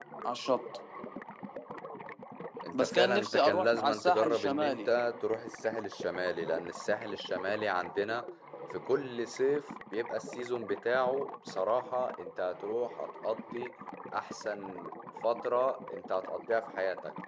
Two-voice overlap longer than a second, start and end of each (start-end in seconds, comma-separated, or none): 2.8-4.9